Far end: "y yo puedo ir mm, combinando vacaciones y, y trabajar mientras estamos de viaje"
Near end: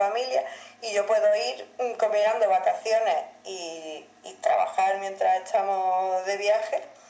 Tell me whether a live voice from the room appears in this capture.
No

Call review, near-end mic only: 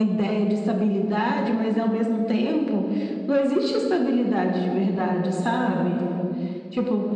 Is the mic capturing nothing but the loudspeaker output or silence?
Yes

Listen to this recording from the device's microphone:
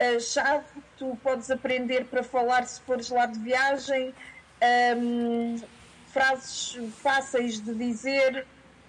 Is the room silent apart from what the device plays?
Yes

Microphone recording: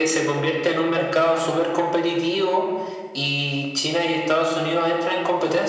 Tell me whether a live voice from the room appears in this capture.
No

